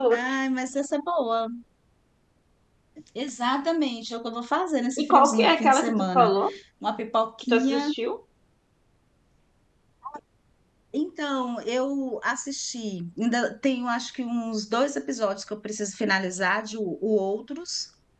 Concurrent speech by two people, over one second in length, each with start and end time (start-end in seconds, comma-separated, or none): 5.0-6.3